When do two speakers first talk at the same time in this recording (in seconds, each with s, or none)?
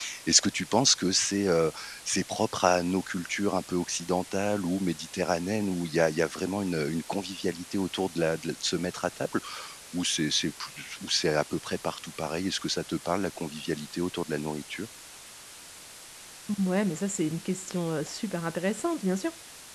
none